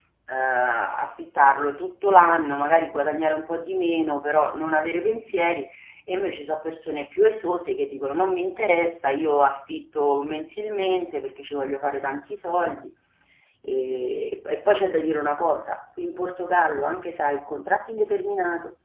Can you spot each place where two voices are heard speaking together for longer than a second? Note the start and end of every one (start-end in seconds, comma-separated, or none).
none